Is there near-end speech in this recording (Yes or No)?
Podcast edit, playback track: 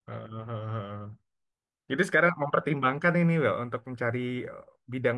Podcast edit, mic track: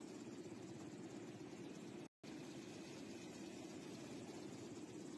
No